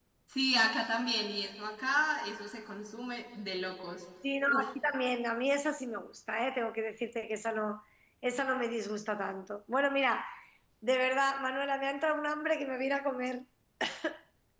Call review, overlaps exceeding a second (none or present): none